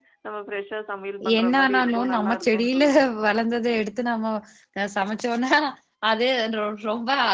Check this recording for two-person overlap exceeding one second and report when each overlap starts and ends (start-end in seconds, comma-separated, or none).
1.4-2.8